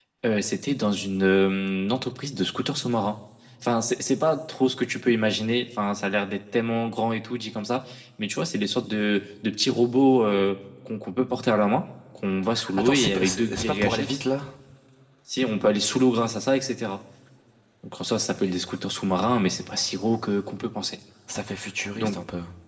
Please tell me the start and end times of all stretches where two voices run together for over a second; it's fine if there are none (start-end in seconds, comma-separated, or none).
12.8-14.2